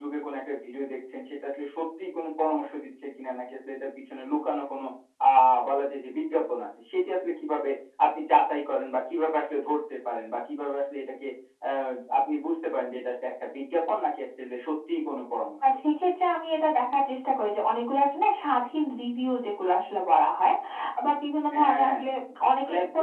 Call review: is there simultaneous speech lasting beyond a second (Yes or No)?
No